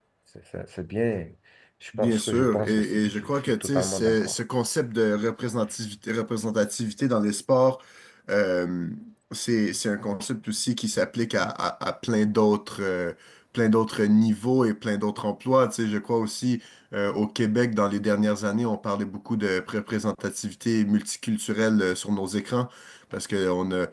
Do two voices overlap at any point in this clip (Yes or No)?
Yes